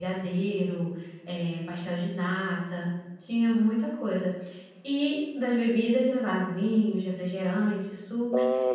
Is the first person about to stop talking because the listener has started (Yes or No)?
No